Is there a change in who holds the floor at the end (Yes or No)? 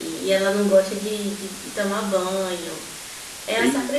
No